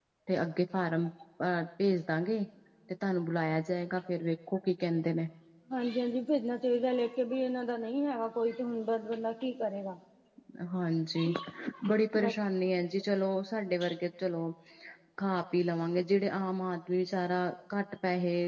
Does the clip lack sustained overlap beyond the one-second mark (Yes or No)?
Yes